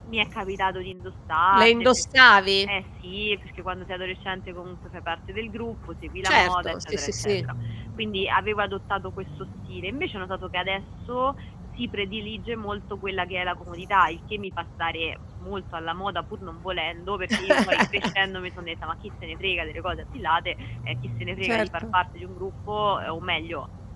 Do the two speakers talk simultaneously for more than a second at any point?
Yes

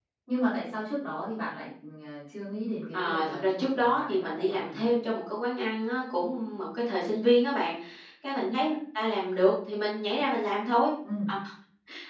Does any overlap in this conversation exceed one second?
Yes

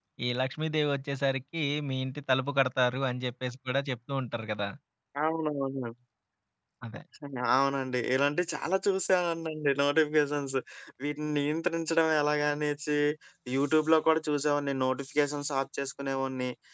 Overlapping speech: No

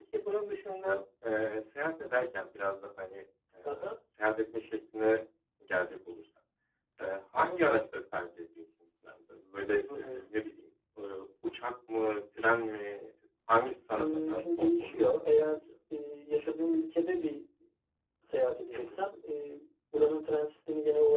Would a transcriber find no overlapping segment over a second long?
No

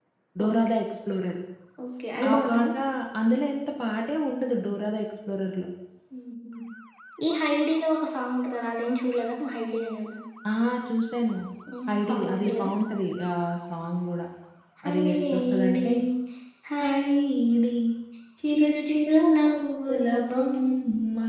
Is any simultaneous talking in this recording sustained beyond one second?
Yes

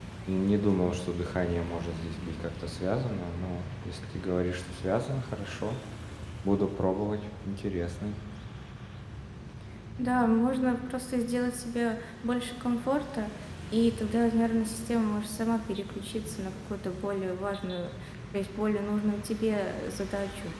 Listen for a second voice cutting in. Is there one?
No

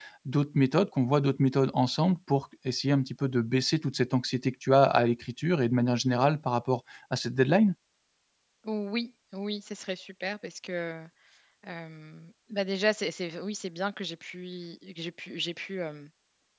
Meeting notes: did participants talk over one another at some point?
No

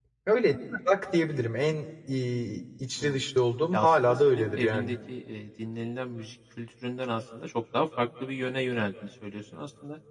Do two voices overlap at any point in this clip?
Yes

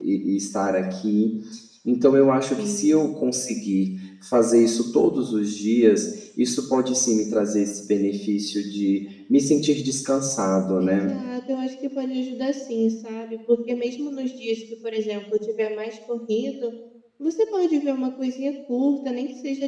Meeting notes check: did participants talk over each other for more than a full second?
No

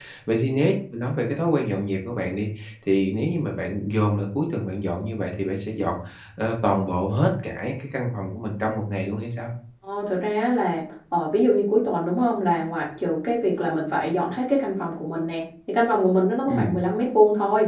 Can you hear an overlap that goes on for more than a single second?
No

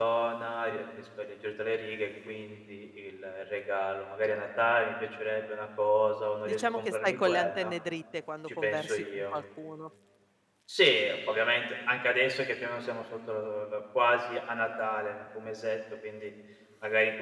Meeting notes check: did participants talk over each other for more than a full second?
Yes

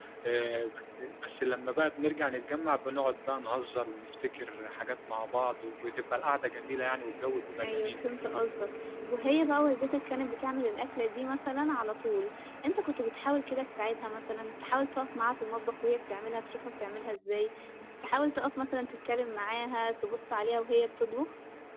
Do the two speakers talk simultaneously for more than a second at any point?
No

